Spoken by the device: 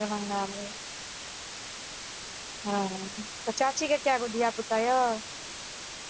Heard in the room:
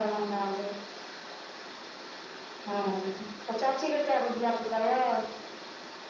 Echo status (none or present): present